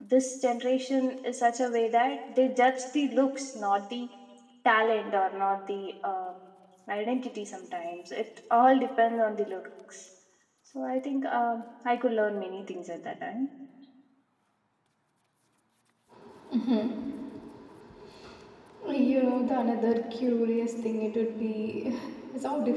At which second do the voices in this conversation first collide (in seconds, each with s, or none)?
none